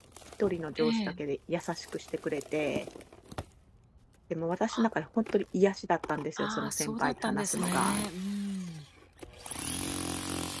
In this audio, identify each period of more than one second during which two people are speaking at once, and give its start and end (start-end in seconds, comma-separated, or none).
6.4-8.0